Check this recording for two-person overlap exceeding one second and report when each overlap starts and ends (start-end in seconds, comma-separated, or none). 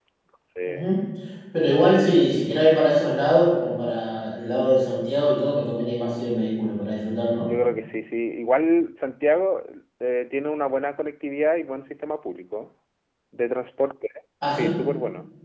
none